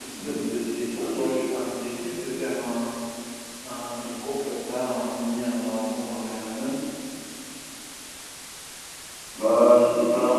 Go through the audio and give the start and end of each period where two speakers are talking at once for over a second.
none

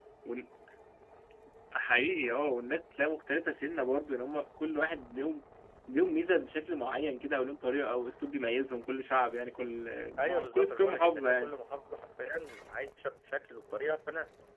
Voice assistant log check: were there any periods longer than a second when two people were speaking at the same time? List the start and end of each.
10.2-11.5

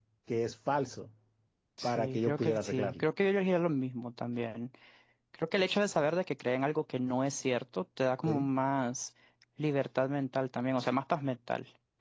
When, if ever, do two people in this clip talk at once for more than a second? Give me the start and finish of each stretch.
1.8-3.0

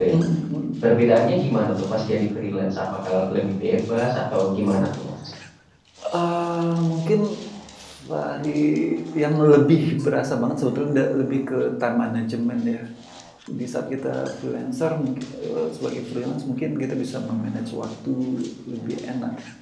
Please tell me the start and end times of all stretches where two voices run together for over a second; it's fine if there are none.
none

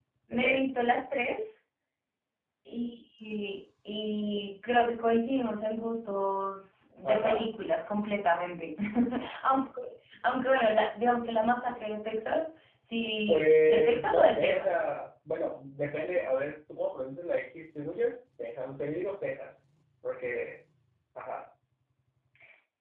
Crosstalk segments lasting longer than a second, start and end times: 13.3-14.9

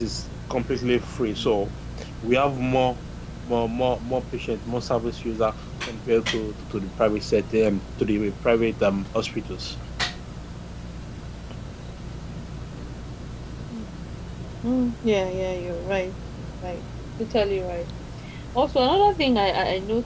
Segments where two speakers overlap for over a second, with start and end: none

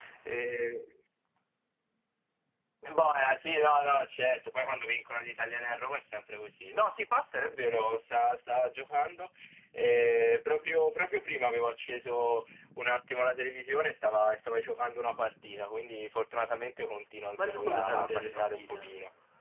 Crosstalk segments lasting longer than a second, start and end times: 17.4-18.9

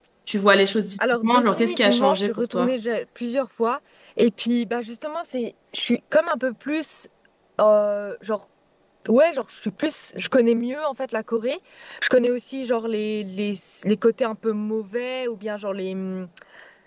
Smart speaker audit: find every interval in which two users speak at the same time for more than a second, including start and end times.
1.2-2.7

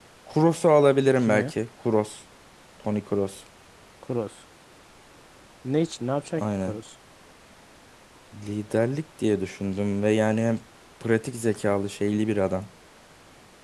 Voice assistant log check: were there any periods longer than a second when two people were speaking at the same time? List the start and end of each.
none

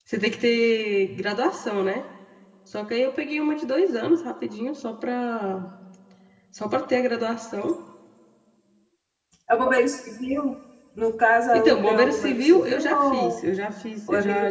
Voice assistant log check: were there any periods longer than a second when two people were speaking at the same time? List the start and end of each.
11.5-13.4

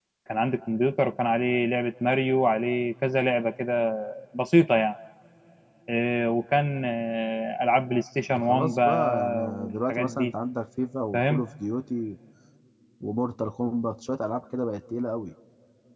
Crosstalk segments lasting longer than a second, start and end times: 8.4-10.3

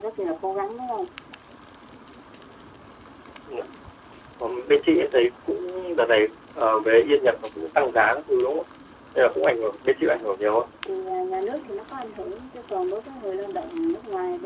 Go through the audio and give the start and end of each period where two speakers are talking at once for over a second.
none

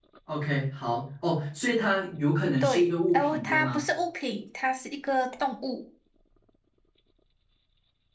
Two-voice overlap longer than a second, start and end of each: 2.6-3.8

